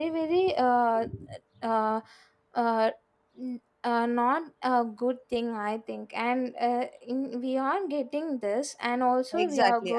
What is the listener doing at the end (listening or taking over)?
taking over